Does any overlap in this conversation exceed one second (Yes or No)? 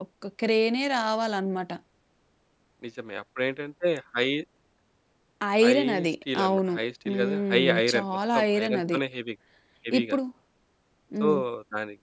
Yes